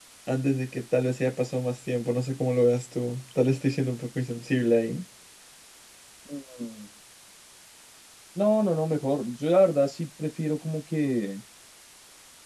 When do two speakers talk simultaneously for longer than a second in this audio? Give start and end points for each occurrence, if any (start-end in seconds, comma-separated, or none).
none